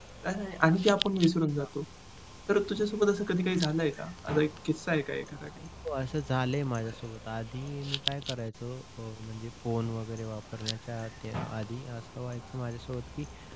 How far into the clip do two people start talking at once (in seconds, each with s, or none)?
none